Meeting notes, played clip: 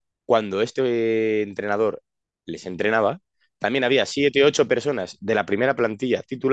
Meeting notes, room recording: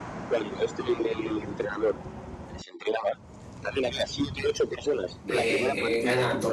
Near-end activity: present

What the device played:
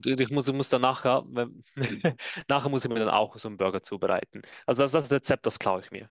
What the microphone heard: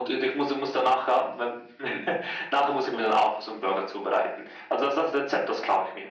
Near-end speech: none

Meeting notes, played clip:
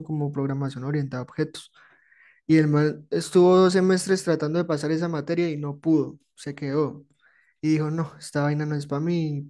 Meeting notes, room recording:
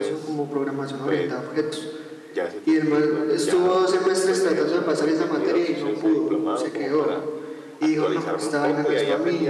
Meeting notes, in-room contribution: present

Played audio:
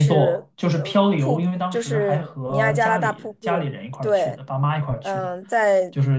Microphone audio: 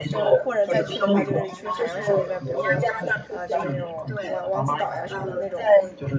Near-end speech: present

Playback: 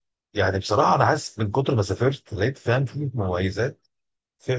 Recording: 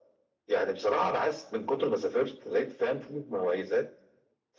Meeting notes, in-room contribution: none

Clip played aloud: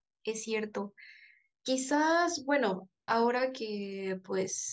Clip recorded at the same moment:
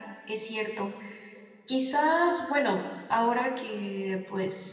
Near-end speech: none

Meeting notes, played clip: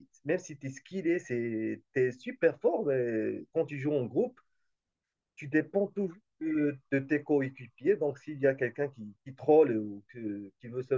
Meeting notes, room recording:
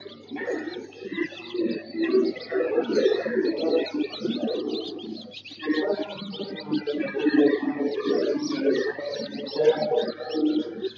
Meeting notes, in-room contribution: none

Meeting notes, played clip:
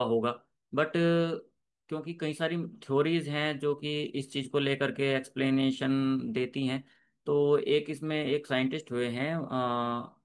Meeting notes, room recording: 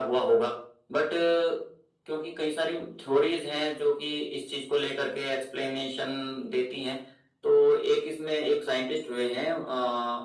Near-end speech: none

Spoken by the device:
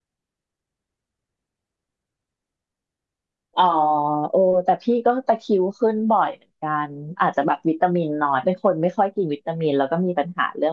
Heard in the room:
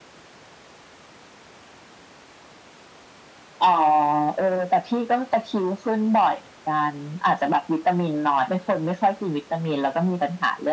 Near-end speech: none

